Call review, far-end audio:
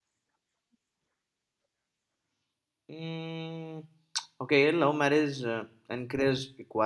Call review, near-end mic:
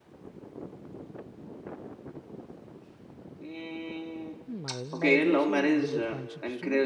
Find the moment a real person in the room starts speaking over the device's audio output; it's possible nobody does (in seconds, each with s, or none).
4.4 s